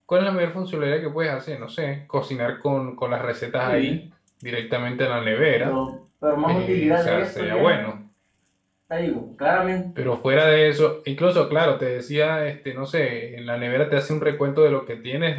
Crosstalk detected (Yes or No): Yes